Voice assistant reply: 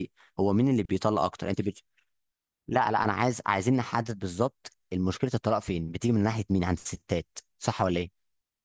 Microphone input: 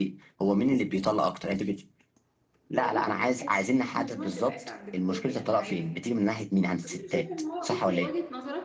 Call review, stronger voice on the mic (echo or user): echo